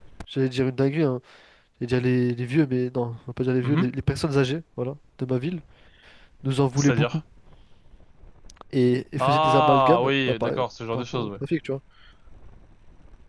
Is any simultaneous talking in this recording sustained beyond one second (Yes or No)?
Yes